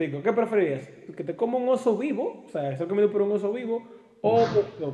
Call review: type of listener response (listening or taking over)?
listening